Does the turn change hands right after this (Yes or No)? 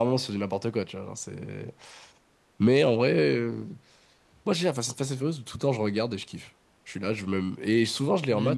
Yes